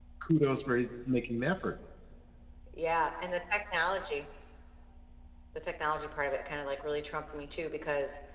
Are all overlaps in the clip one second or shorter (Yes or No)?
Yes